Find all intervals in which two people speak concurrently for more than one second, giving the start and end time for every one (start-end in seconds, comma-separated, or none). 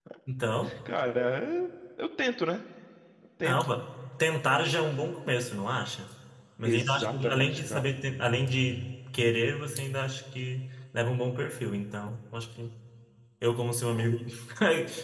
6.6-7.9